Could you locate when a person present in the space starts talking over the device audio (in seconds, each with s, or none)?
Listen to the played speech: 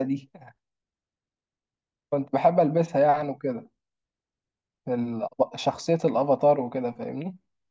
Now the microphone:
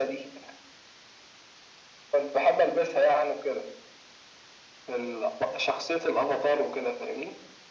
none